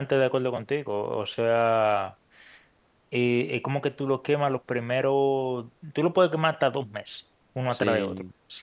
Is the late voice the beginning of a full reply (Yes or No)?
No